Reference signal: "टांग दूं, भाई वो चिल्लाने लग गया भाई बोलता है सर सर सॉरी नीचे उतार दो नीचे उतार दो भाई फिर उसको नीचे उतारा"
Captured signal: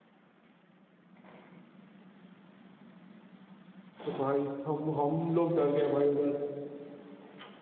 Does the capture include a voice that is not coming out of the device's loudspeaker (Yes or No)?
Yes